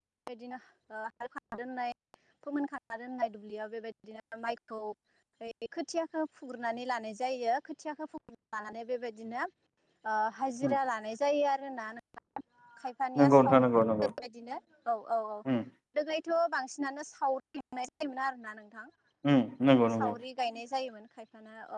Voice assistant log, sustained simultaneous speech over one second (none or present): none